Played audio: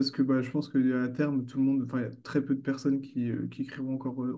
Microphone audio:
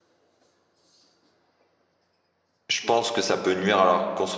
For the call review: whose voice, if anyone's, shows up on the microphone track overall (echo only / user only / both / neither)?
user only